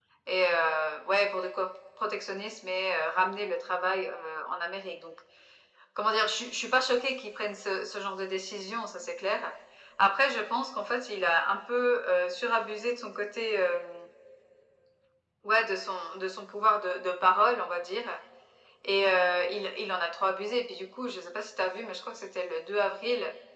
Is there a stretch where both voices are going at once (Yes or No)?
No